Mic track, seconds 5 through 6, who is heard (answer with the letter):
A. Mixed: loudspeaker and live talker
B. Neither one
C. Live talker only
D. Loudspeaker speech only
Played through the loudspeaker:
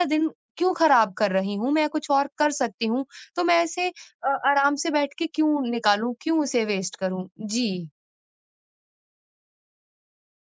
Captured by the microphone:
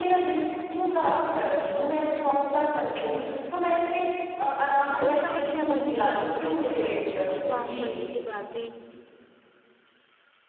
A